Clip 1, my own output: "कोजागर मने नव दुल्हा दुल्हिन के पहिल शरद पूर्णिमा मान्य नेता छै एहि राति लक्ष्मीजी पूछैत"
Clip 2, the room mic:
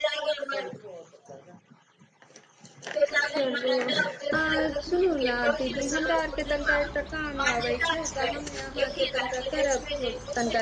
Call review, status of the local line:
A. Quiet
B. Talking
B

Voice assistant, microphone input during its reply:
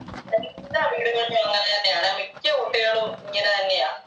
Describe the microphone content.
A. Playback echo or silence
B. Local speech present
A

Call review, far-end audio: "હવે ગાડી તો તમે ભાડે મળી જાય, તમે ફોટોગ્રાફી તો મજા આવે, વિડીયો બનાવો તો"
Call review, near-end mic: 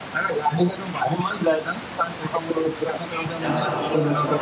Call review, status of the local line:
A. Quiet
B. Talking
B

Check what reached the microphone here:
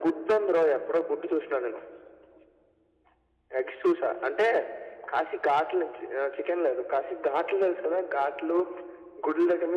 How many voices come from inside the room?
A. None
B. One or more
A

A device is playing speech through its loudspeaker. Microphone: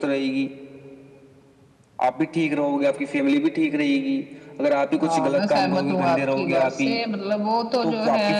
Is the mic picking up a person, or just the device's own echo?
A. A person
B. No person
B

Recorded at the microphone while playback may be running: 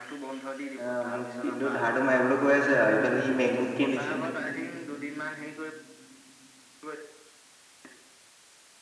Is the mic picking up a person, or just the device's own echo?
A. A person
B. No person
A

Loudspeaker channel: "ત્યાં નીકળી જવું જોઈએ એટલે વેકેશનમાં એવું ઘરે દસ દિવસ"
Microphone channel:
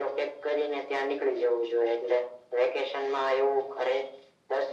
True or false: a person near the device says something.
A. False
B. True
A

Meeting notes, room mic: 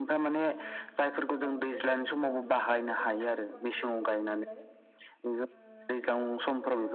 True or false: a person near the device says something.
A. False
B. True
B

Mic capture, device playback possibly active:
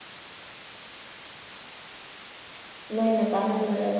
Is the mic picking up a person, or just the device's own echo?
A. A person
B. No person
A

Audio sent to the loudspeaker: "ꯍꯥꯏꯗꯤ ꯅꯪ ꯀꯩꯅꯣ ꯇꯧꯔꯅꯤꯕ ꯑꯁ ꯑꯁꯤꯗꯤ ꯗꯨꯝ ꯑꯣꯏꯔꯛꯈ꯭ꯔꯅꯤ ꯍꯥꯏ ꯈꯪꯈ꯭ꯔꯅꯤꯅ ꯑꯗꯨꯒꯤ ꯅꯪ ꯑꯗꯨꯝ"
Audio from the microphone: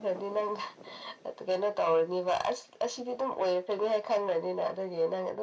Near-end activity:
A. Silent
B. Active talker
A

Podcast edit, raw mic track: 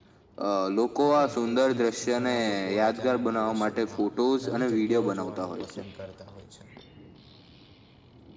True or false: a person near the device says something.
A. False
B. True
B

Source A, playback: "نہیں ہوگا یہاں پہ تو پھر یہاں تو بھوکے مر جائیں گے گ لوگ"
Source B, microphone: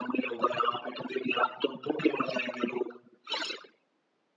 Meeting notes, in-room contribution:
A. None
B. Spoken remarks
A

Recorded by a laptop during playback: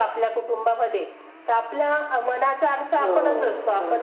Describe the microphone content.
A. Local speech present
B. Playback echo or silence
A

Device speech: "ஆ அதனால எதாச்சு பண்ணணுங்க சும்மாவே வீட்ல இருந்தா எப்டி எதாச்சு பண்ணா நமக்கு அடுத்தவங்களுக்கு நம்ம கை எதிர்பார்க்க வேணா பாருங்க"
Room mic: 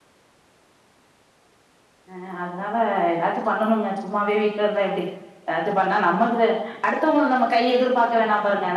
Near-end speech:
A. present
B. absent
B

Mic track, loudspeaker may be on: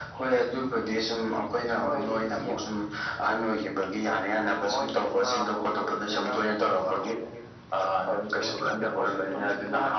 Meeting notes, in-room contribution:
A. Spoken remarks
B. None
A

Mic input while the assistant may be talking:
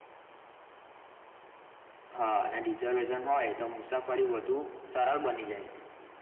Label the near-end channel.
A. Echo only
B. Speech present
A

